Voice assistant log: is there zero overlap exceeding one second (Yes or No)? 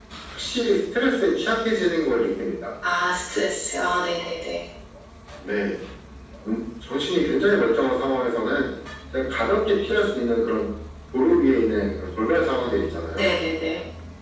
Yes